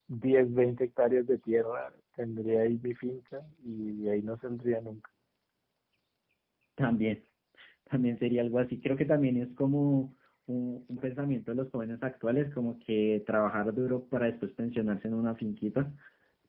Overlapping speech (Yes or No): No